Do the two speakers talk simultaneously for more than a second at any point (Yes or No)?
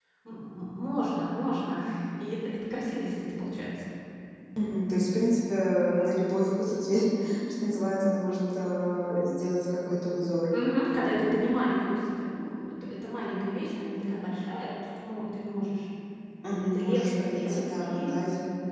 Yes